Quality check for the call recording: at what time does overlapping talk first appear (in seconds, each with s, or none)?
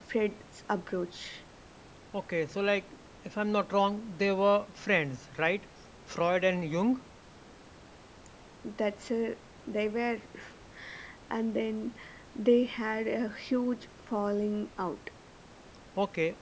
none